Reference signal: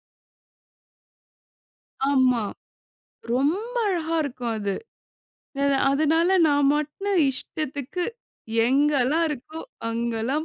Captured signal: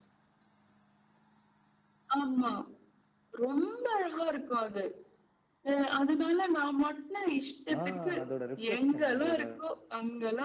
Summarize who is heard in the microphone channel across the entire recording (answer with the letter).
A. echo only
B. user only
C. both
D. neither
C